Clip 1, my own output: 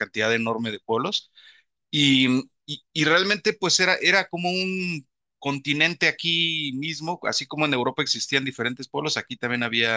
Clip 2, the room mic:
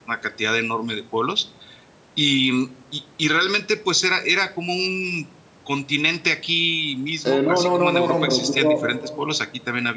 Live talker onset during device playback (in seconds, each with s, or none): 7.2 s